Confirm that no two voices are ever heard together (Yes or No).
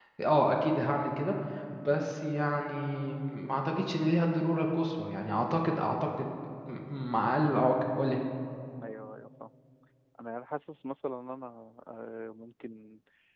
Yes